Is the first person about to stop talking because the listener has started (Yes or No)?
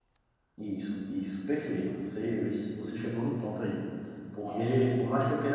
No